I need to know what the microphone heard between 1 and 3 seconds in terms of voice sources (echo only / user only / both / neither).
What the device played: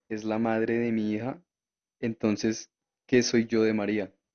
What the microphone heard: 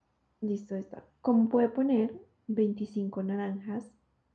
user only